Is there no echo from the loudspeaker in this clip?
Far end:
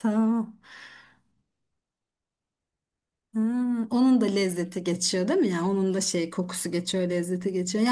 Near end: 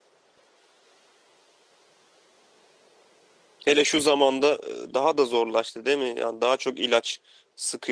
Yes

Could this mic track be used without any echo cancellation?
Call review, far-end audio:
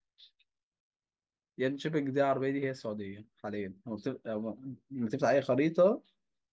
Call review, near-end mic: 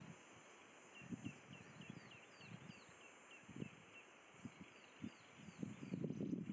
Yes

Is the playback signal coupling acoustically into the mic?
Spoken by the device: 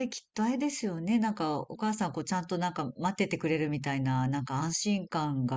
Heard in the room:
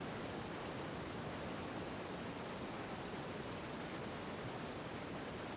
No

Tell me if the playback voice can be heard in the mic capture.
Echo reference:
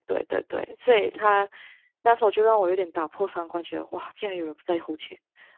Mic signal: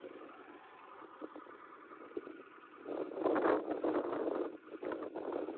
No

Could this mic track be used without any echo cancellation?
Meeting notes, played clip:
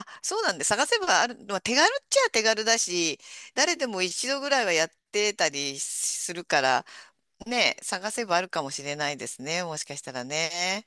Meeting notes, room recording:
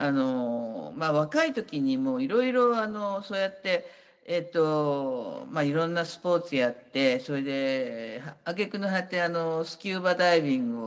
Yes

